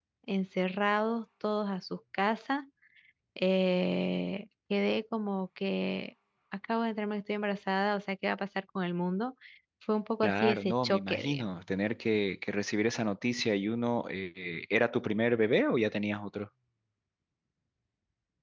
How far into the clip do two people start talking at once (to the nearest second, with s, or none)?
10 s